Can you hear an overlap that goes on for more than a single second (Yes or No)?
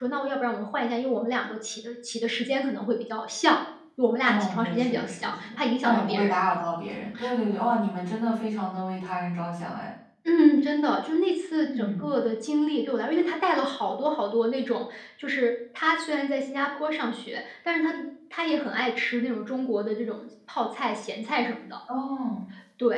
Yes